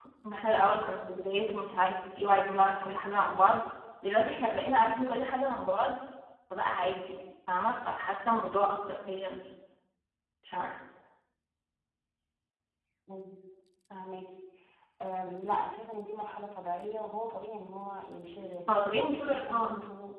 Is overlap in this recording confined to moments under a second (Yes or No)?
Yes